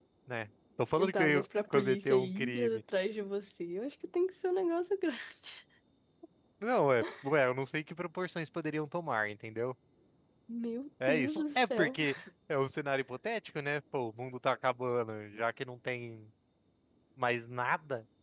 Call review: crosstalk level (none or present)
present